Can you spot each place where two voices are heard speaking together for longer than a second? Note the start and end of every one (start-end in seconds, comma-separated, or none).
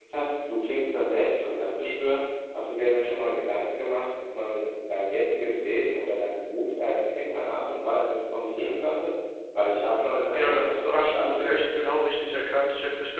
10.3-11.5